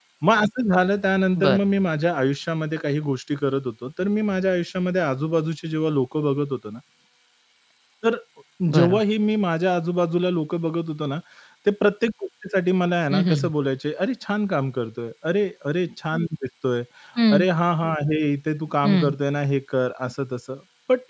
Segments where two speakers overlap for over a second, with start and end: none

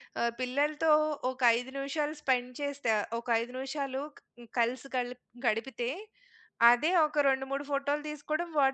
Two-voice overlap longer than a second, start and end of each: none

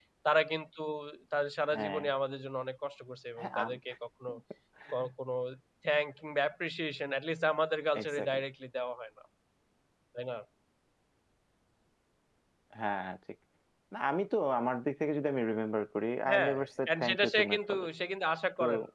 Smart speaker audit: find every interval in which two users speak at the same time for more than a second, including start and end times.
16.3-17.9

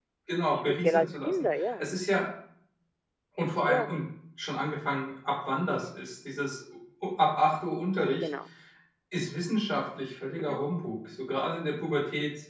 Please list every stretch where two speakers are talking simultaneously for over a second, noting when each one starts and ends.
0.5-1.9

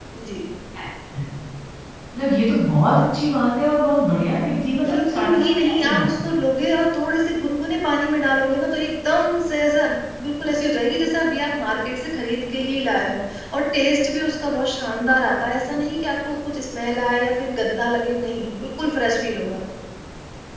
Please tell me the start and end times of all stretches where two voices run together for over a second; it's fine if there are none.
4.8-6.2

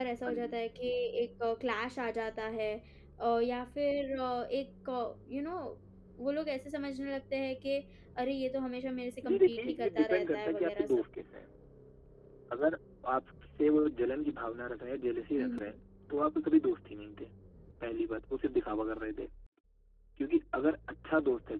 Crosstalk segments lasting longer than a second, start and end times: 9.3-10.9

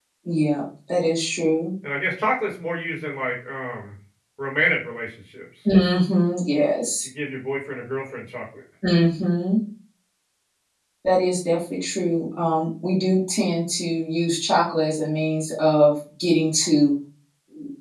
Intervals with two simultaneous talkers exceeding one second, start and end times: none

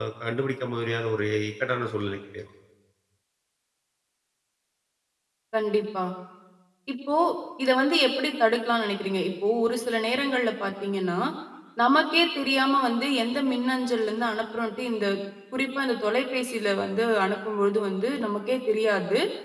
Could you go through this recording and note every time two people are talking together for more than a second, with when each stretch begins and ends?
none

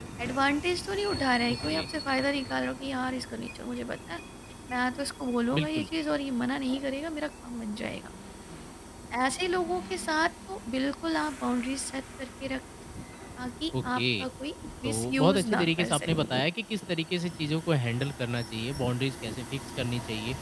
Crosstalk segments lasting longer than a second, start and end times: 14.8-16.1

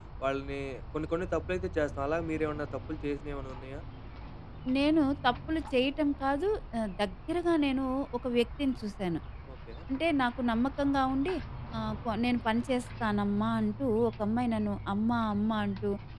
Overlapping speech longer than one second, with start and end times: none

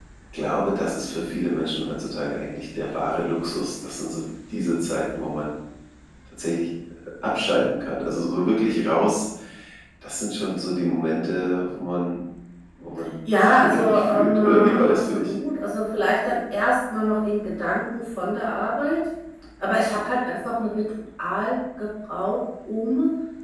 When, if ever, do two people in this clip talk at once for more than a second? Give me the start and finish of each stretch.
13.4-15.3

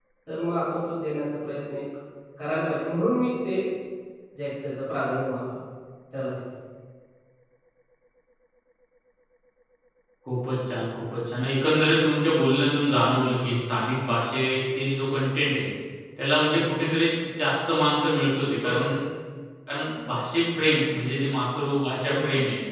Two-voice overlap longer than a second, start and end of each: none

